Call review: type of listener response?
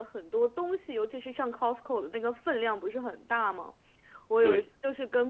listening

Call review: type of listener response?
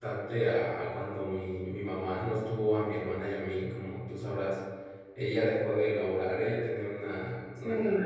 listening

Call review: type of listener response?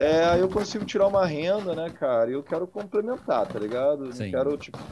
listening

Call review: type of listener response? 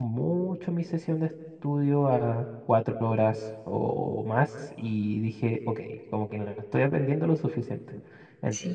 listening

